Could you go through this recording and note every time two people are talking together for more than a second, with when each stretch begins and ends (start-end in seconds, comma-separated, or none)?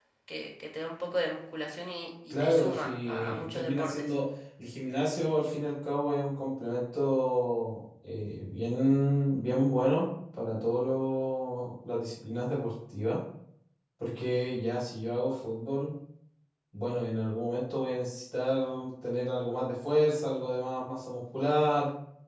2.3-4.1